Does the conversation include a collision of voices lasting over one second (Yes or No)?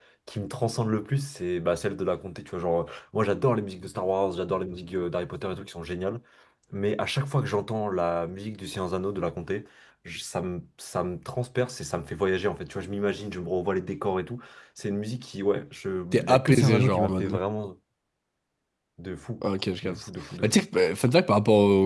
Yes